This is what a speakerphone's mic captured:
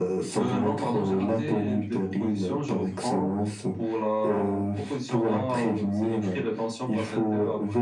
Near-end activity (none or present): none